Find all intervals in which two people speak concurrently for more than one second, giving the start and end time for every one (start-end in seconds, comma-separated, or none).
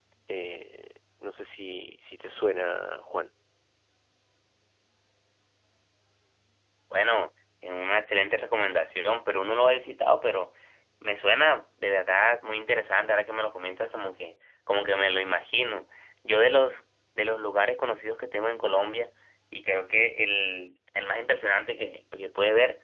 none